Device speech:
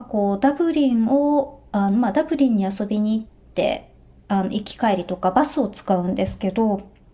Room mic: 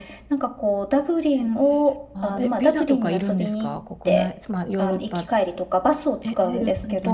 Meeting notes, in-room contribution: present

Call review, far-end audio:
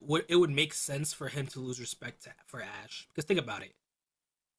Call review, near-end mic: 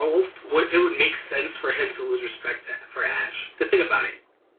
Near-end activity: none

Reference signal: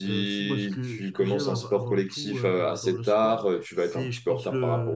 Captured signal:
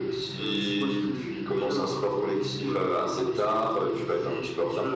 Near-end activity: none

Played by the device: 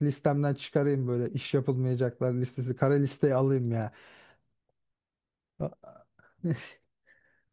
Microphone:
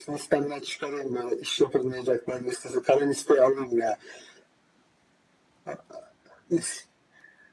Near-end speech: none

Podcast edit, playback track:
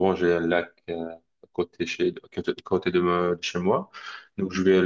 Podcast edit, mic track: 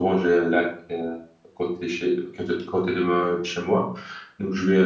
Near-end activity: none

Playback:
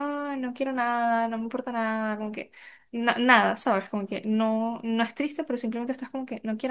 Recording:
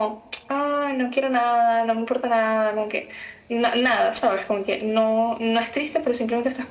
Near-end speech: none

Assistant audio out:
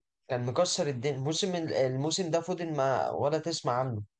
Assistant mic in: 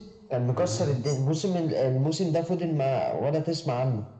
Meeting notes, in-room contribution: present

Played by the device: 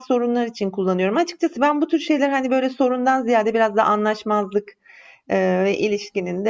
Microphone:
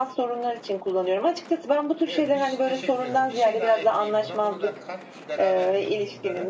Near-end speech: present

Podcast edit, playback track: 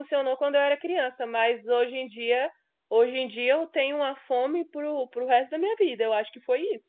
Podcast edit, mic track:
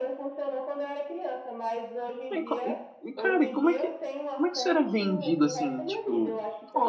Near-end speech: present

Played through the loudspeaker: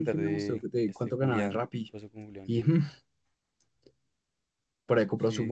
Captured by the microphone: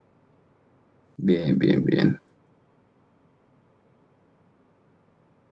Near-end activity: present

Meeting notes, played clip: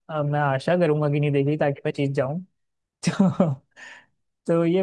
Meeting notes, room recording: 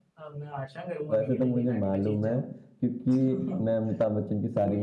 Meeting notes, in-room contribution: present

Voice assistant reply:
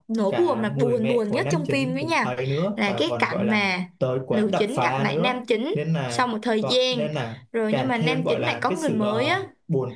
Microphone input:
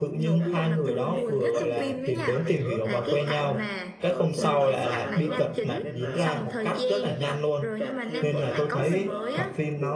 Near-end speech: present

